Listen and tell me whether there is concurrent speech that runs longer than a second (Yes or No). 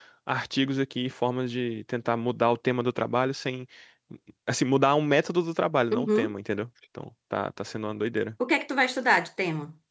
No